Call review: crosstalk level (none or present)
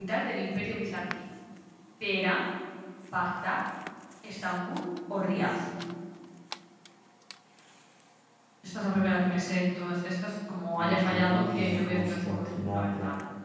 present